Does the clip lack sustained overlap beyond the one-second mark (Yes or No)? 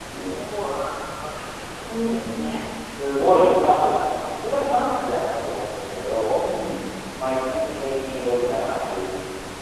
Yes